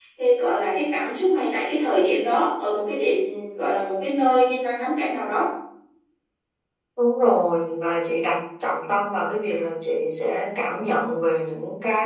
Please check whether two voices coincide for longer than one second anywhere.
No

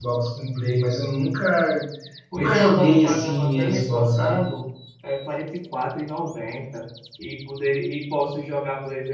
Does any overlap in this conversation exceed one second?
Yes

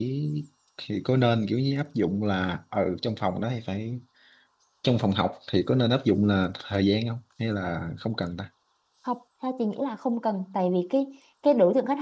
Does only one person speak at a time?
Yes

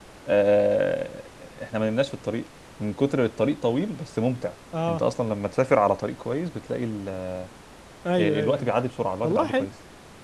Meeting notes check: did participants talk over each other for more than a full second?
No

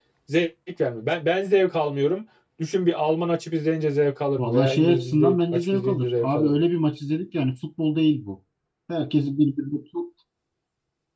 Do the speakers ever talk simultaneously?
Yes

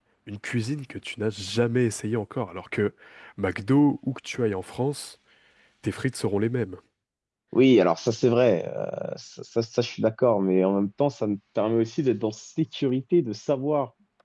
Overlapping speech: No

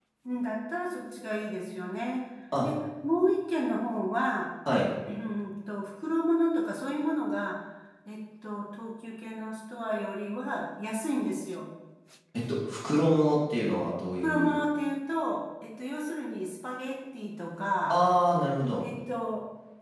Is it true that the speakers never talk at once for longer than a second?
Yes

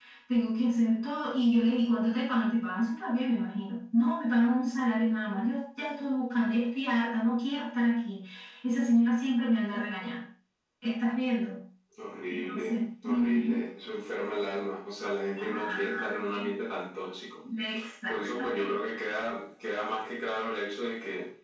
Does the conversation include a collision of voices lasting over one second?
Yes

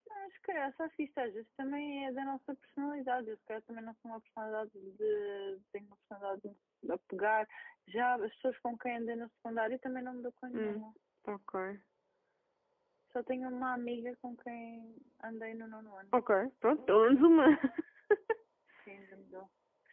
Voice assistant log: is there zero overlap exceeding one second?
Yes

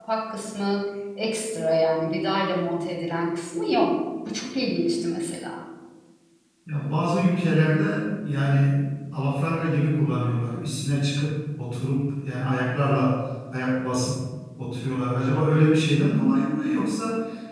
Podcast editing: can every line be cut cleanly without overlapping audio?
Yes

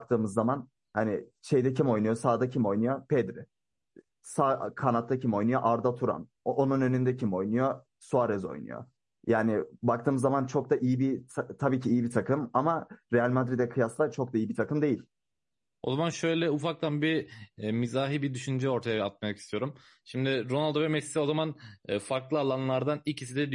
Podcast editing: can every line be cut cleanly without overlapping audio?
Yes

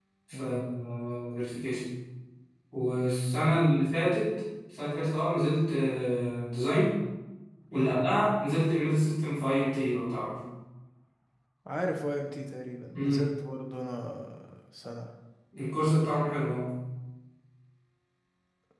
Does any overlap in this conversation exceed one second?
No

